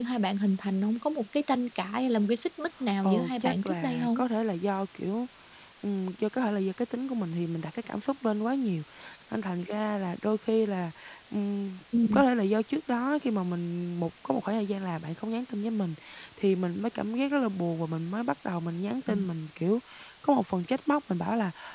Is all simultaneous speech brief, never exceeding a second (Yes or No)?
No